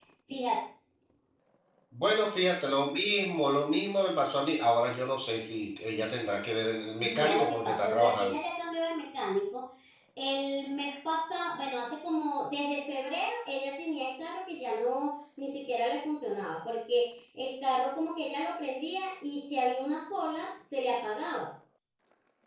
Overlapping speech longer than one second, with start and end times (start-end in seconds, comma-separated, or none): 7.0-8.3